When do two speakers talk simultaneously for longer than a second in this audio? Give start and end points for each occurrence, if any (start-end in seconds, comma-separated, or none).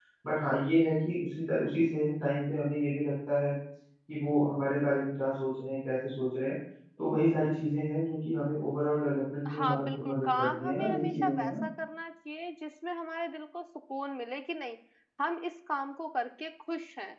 9.5-11.5